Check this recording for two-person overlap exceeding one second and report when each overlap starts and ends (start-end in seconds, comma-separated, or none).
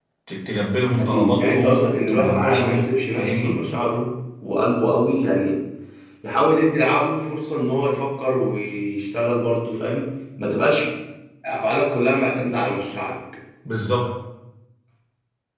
1.0-3.6